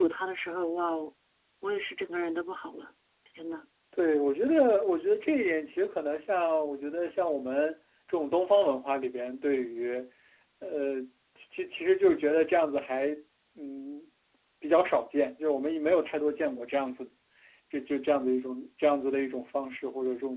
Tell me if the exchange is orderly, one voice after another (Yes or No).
Yes